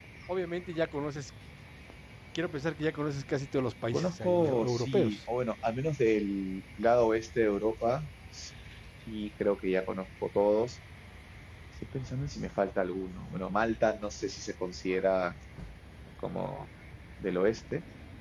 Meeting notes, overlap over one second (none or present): present